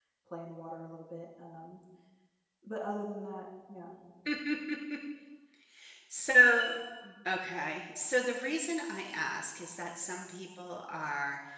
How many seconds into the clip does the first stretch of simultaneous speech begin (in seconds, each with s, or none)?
none